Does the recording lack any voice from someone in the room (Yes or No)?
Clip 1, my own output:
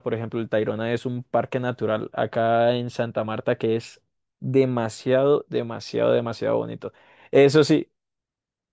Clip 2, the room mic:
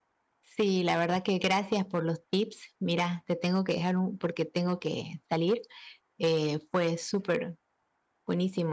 No